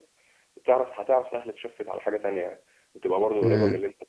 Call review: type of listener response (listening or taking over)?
taking over